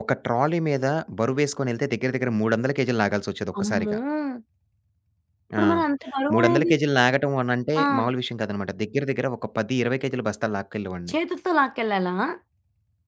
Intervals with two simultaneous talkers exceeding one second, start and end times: none

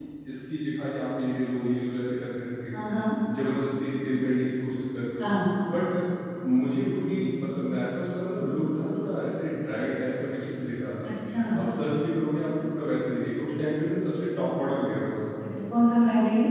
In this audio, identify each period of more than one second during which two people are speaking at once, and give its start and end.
none

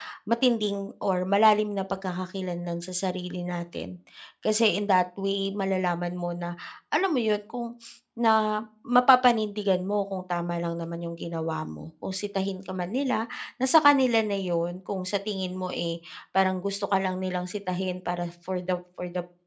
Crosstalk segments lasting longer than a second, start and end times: none

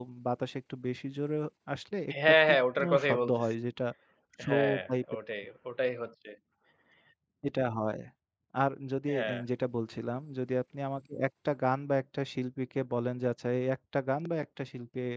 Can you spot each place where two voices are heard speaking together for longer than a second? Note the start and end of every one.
2.3-3.5

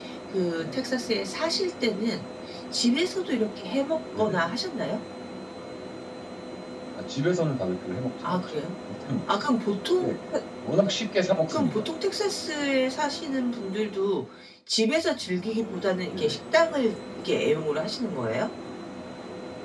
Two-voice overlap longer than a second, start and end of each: none

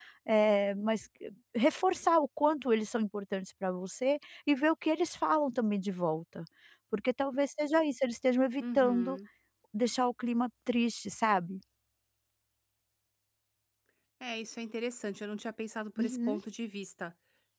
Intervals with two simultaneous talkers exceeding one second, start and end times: none

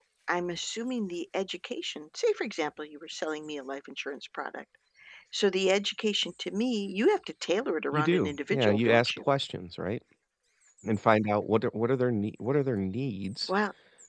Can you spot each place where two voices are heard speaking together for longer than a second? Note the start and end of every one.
7.9-9.3

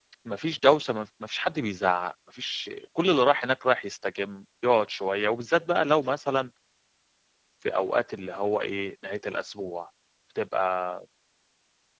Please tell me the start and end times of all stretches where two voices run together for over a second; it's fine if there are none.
none

